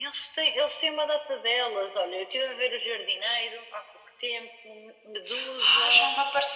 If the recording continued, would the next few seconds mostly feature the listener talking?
Yes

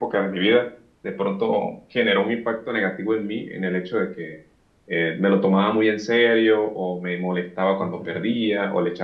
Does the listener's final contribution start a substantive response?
No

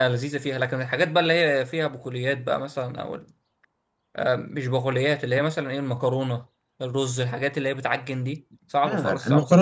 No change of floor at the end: No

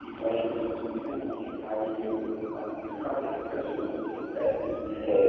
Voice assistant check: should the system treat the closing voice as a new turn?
Yes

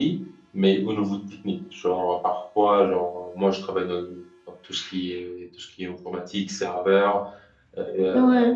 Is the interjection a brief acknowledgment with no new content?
Yes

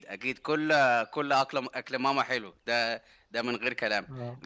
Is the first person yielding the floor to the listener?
No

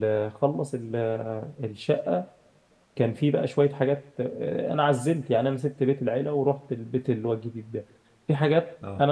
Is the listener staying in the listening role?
Yes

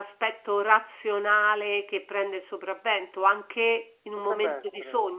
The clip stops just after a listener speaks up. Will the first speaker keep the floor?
Yes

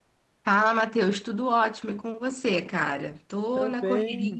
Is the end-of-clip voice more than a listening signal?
Yes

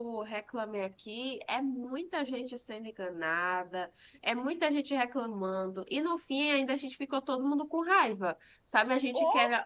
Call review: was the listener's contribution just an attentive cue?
Yes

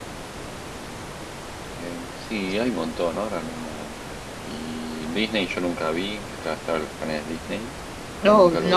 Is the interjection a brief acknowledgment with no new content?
No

